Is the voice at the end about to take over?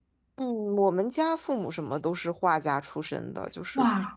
No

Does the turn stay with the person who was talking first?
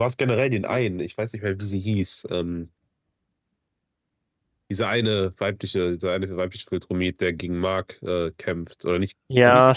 No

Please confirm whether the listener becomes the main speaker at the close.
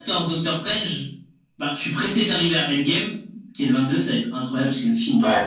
Yes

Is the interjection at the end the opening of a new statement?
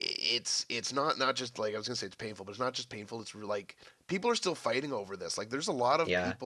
No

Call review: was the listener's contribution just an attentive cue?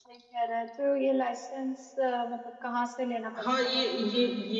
No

